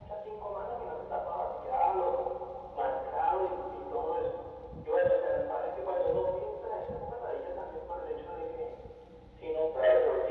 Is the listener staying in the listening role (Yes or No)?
No